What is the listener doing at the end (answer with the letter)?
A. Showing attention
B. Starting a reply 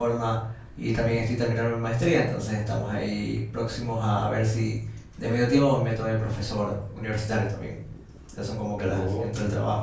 A